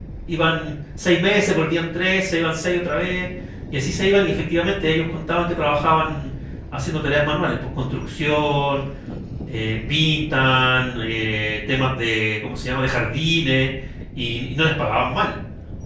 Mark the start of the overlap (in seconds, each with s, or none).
none